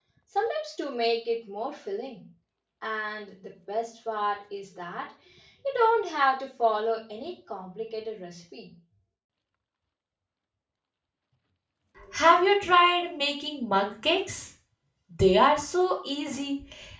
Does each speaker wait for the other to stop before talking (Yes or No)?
Yes